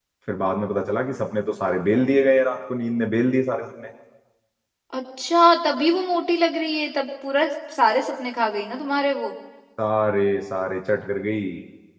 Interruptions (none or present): none